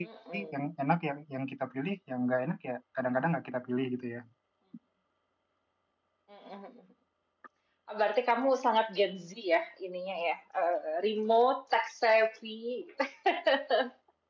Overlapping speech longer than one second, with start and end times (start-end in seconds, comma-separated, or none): none